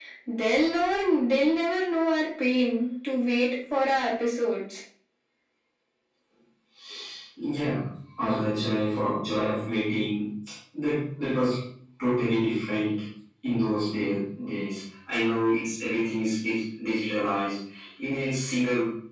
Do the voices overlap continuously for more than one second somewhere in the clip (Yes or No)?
No